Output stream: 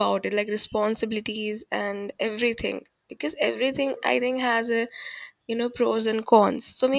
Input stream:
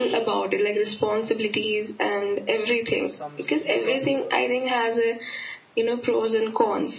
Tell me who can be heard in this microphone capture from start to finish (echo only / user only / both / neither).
both